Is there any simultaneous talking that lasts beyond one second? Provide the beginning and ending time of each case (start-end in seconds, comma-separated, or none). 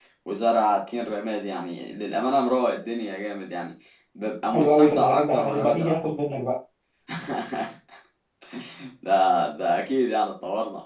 4.5-5.9